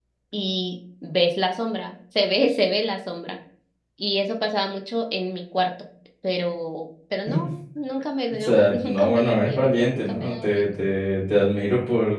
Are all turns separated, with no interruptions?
No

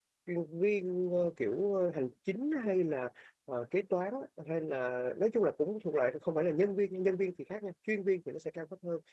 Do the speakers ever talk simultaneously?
No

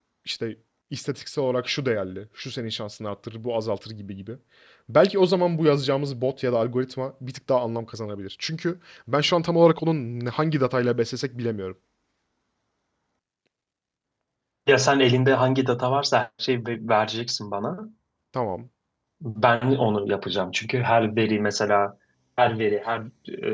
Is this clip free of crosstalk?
Yes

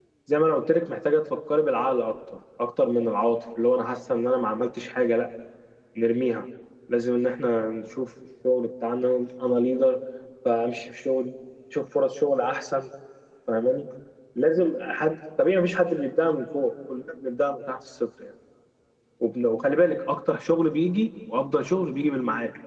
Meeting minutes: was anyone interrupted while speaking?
No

